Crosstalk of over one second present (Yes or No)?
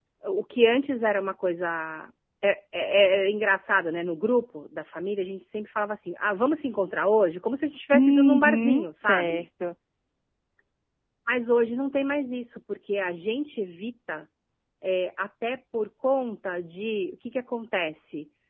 Yes